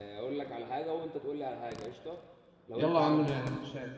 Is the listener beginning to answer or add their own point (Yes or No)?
Yes